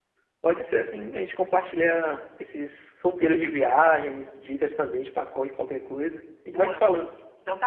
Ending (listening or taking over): taking over